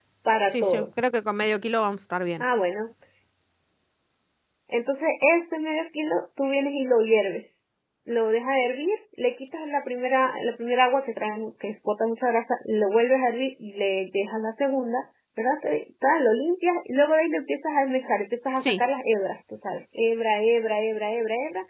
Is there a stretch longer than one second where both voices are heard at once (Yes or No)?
No